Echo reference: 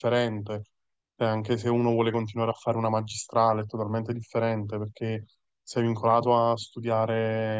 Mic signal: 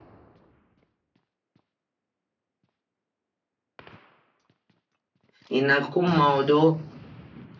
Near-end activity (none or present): present